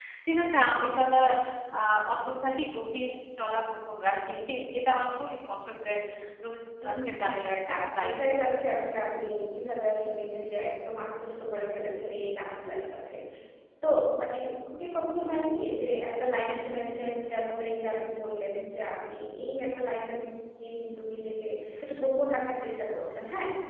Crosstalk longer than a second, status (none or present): present